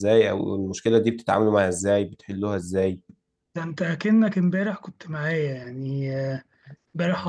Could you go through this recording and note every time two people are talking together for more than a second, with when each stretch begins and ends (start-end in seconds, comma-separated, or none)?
none